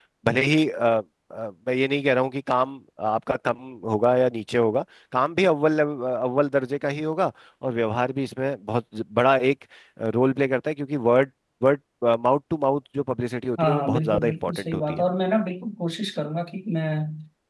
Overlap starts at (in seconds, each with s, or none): 13.6 s